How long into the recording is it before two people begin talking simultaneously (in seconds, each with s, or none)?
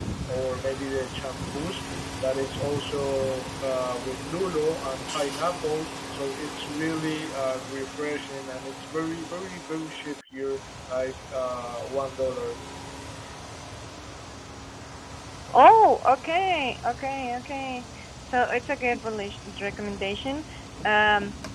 none